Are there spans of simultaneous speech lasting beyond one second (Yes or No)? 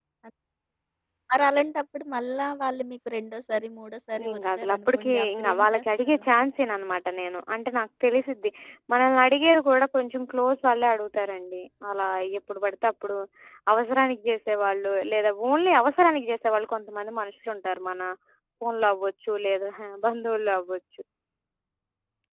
Yes